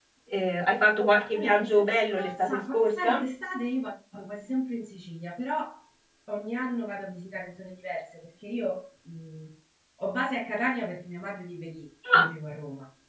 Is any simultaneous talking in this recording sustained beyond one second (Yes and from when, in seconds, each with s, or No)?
Yes, from 1.3 s